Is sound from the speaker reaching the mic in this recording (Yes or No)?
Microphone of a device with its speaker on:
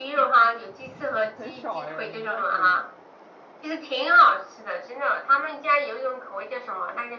Yes